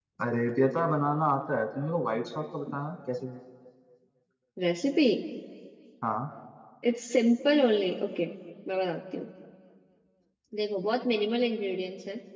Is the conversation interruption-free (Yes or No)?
Yes